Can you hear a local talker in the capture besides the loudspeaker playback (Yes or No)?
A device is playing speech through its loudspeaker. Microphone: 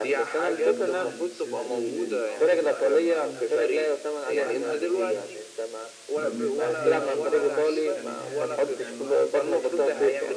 Yes